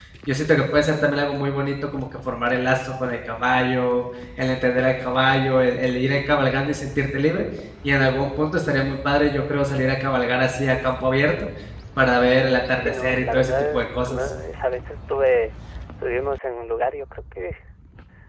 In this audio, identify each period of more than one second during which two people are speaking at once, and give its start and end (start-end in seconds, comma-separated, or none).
12.7-14.3